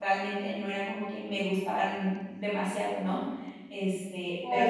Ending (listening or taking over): taking over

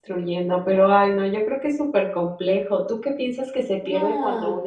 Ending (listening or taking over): listening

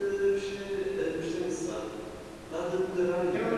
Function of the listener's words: taking over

